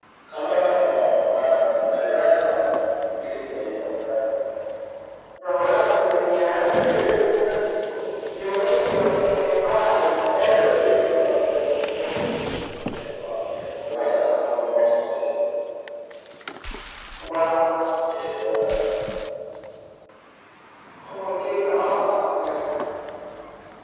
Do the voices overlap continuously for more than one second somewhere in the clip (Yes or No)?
No